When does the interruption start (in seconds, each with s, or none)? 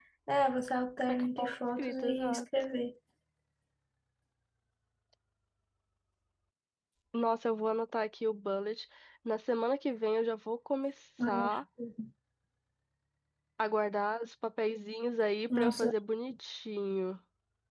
1.1 s